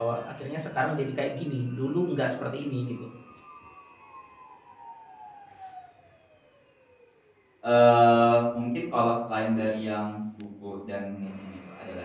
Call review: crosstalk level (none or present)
none